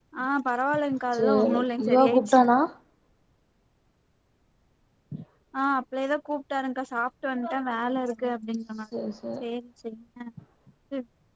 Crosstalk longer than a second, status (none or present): present